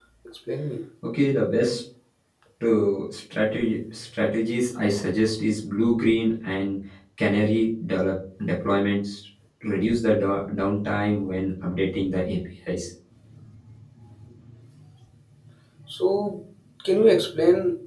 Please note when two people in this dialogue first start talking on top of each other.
none

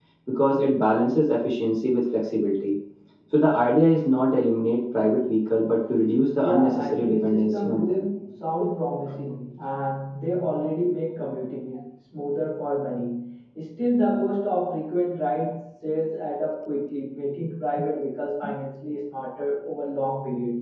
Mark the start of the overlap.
6.4 s

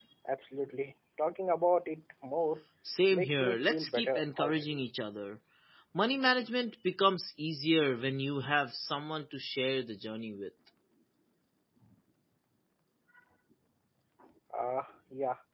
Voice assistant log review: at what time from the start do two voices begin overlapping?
3.1 s

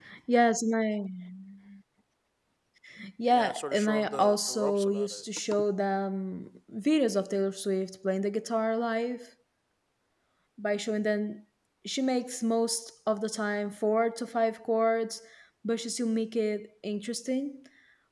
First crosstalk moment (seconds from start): 3.3 s

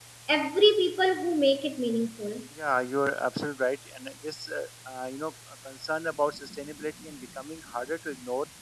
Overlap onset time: none

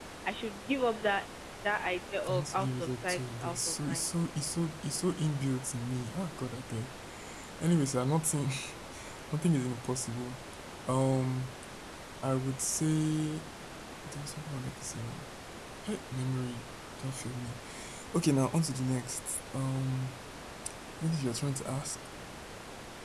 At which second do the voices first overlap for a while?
2.2 s

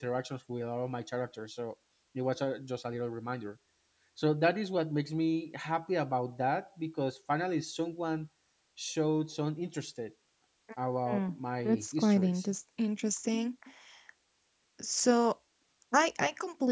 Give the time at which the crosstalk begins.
11.1 s

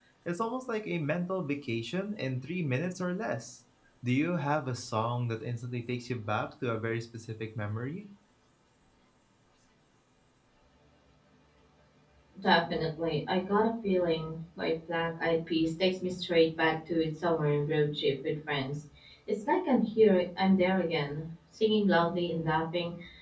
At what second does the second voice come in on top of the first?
none

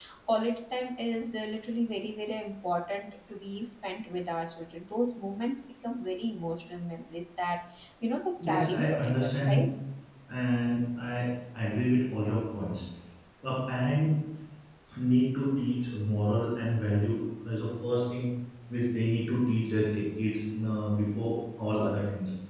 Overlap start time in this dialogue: 8.4 s

